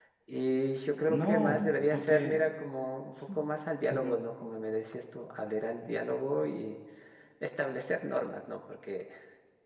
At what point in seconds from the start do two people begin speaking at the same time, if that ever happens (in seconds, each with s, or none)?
1.1 s